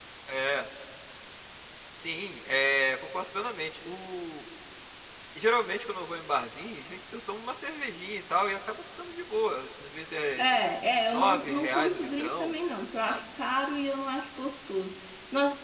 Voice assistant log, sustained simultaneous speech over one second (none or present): present